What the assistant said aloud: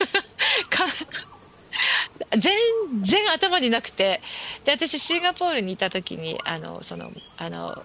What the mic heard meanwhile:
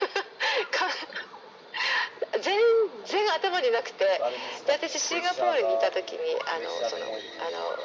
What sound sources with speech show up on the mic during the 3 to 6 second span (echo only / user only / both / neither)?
both